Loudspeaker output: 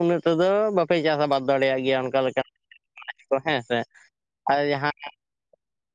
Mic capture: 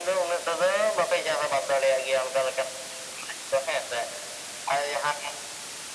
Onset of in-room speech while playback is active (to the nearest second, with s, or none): none